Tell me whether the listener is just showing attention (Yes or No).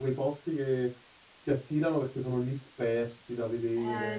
No